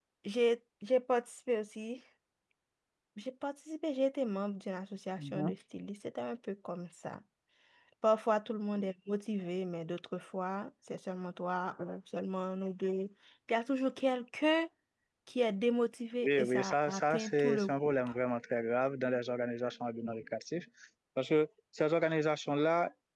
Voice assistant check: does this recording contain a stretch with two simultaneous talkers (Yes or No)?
Yes